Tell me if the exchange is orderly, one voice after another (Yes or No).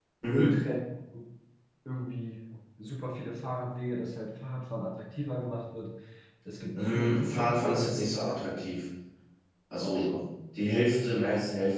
No